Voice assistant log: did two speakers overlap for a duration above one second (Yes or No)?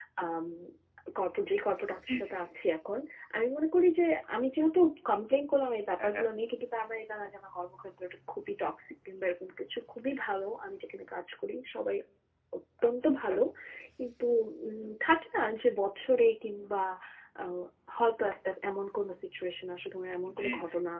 No